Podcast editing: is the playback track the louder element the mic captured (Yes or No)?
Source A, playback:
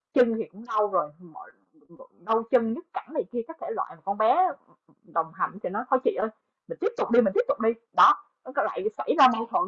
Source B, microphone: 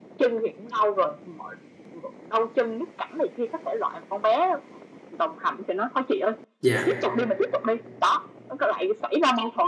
No